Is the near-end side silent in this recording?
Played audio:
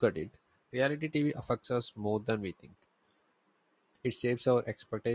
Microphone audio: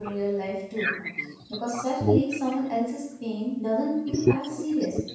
No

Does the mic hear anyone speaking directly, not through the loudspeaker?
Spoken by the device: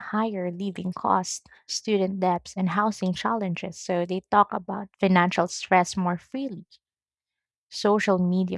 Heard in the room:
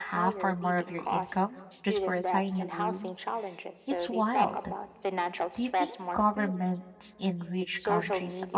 Yes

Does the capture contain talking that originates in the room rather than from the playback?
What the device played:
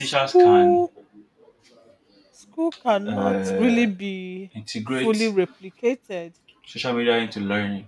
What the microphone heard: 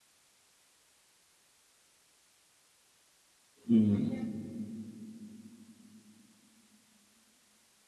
Yes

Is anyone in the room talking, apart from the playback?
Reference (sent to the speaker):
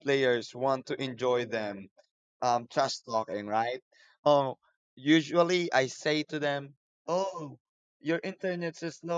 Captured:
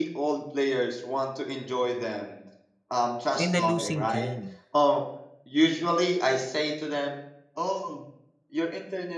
Yes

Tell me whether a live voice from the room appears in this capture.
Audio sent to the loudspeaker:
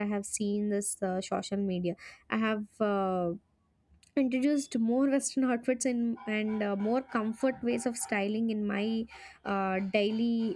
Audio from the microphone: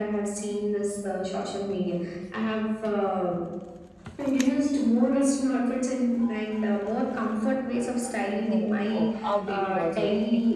Yes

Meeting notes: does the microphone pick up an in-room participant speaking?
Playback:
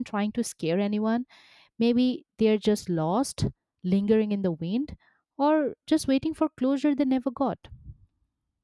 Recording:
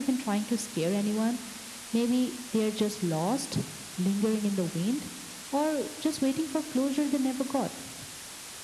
No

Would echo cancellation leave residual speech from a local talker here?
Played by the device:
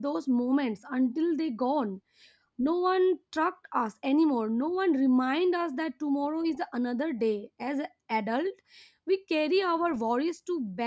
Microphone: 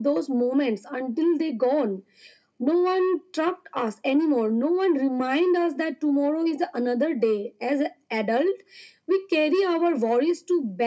No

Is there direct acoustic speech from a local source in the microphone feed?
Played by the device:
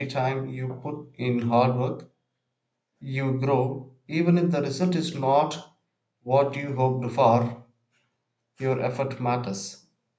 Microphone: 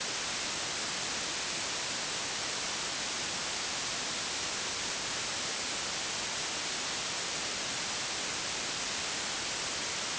No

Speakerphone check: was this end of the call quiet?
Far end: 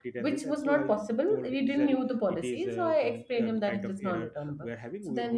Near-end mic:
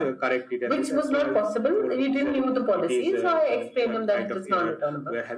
Yes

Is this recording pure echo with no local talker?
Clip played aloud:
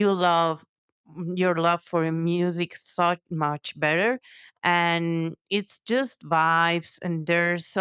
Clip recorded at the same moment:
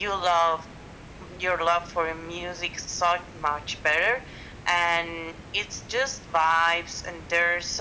Yes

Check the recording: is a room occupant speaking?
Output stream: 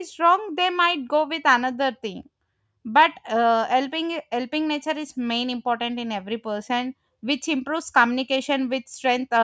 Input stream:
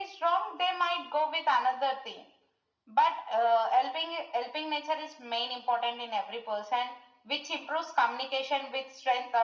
No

